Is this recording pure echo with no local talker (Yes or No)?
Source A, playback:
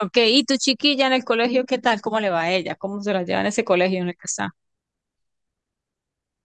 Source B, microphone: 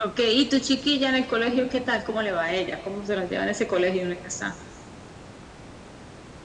Yes